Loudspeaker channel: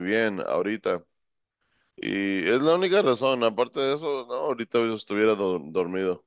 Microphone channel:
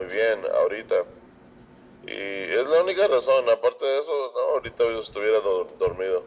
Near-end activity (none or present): none